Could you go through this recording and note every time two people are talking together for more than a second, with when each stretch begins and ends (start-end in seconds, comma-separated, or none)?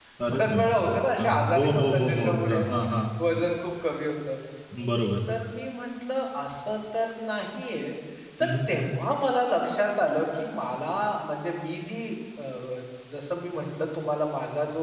1.2-2.6